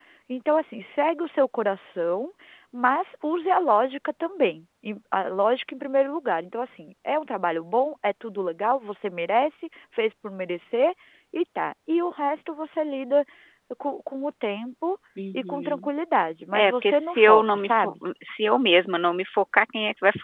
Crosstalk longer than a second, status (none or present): present